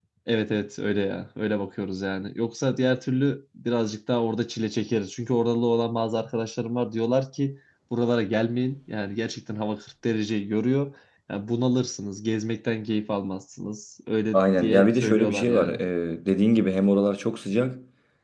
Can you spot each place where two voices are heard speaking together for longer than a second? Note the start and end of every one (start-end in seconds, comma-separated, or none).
14.3-15.8